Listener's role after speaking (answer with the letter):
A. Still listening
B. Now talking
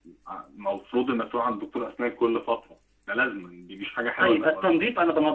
B